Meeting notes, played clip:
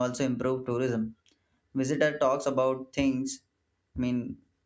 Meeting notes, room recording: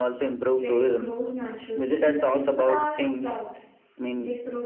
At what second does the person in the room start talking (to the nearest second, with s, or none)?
1 s